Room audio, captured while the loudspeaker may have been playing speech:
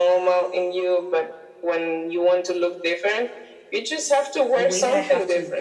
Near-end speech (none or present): present